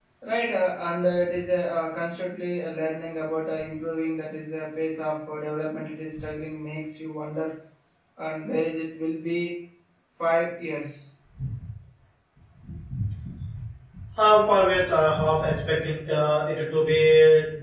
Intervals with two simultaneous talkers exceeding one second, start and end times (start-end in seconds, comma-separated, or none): none